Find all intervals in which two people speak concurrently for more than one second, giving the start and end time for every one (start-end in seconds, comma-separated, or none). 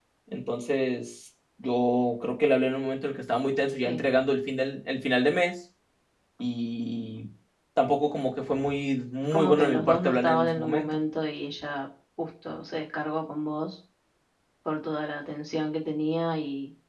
9.3-10.8